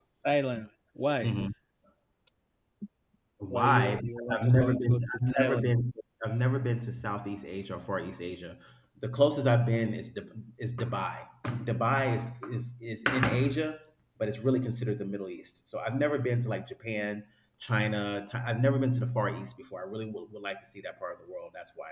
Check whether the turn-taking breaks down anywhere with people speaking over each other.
Yes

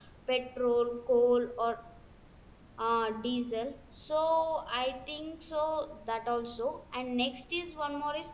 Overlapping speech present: No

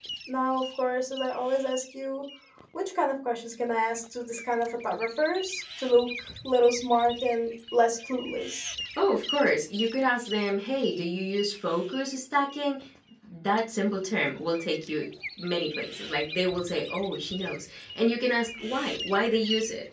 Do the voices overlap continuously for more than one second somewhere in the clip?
No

